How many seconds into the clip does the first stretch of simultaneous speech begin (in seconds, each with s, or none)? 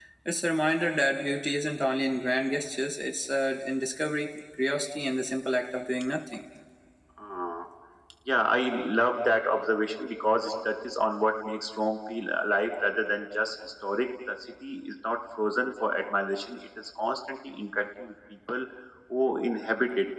none